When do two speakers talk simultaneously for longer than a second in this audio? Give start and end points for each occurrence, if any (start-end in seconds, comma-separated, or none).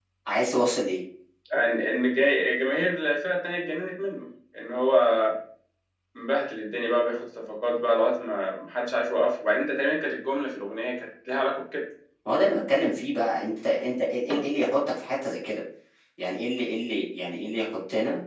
none